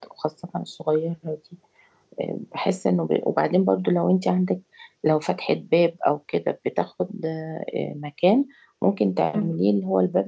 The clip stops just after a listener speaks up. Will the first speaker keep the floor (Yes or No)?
Yes